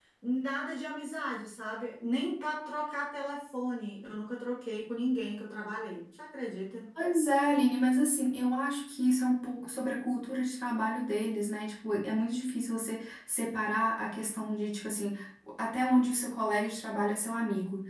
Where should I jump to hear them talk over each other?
none

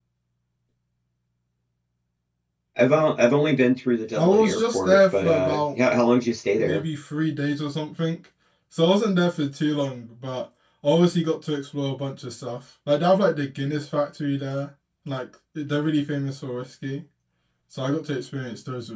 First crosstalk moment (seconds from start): 4 s

